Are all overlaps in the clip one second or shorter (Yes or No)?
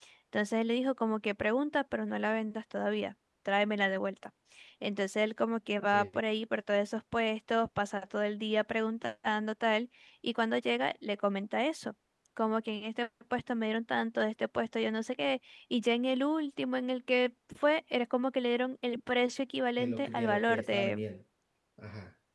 No